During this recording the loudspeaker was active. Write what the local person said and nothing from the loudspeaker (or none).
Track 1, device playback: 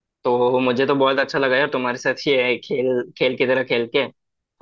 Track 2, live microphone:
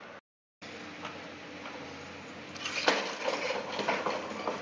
none